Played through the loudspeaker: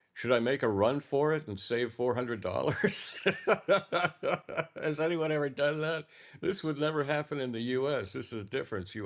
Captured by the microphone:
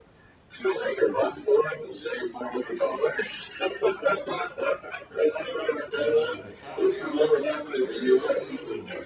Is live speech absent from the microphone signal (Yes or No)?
No